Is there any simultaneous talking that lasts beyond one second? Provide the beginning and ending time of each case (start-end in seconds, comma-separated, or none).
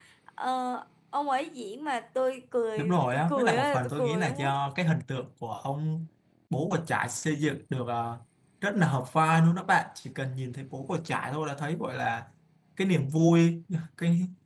2.8-4.5